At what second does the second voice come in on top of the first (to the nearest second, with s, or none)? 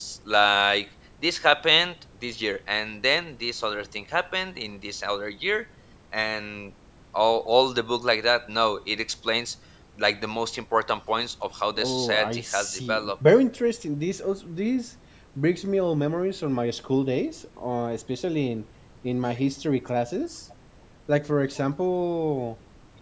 12 s